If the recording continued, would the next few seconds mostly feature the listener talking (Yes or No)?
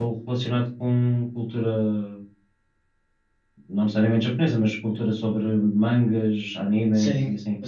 Yes